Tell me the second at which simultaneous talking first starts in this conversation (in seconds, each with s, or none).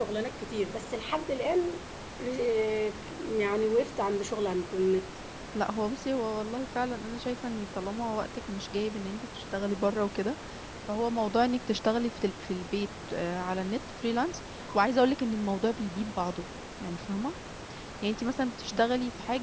none